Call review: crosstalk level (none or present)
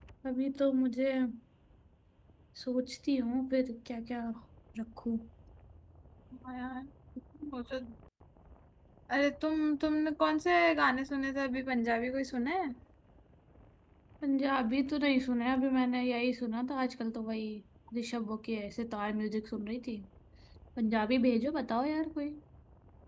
none